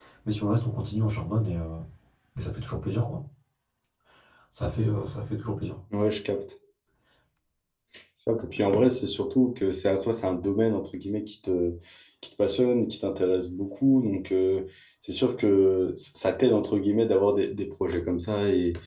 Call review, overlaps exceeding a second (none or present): none